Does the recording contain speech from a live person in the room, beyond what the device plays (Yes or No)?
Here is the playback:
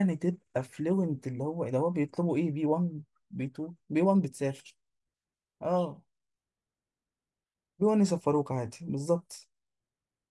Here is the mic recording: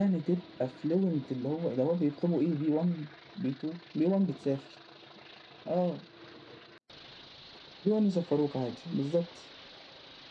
No